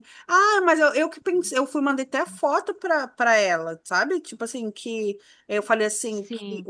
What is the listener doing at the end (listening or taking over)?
listening